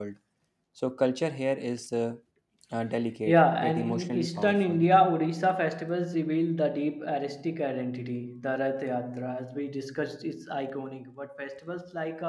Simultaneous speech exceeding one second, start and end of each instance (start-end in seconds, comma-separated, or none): 3.3-4.8